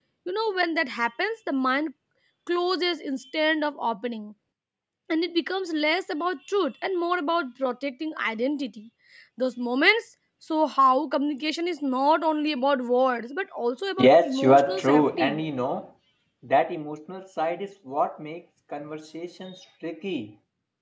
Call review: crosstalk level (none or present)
present